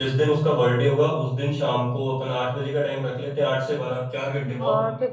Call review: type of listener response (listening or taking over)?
taking over